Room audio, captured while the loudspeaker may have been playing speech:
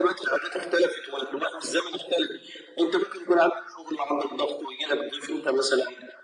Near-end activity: none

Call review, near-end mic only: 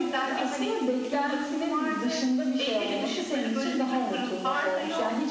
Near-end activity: none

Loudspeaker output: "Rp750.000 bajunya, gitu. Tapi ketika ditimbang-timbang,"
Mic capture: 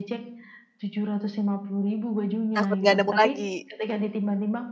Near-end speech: present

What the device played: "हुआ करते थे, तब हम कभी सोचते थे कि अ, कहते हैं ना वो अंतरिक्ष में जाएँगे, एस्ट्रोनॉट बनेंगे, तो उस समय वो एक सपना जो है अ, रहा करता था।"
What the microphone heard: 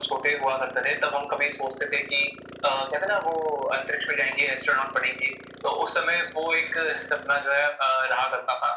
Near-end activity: none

